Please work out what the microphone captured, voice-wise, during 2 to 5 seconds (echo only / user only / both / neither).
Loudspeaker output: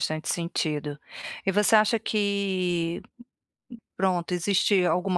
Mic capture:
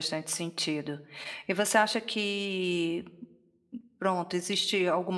echo only